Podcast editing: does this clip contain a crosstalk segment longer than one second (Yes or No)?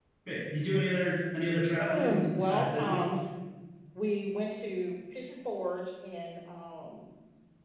Yes